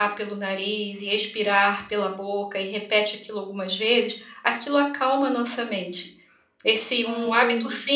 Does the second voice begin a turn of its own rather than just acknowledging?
No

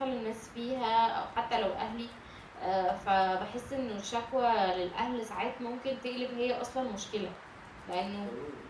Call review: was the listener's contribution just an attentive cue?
Yes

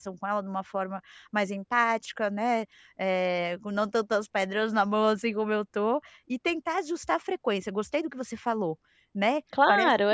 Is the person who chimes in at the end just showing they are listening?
No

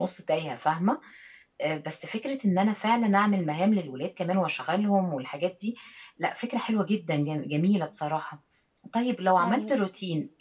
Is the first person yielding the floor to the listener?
No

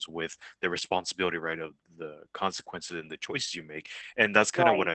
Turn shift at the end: No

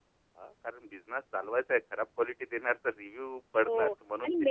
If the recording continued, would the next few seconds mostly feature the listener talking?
Yes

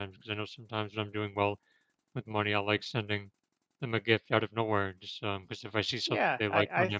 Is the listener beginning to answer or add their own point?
Yes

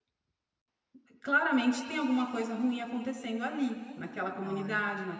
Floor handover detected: No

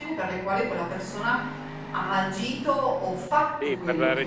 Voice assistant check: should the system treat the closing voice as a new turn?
Yes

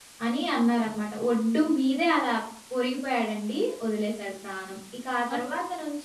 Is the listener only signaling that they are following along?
Yes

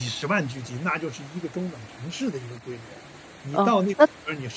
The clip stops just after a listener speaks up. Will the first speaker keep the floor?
No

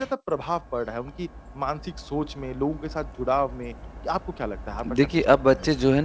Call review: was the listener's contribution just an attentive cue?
No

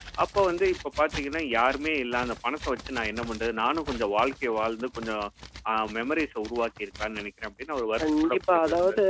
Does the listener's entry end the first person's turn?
Yes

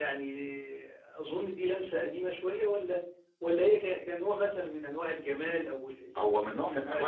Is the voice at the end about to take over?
Yes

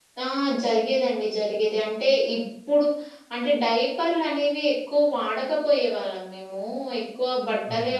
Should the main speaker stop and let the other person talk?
No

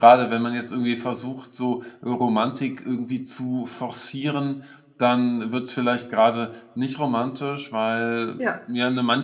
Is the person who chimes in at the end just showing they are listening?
Yes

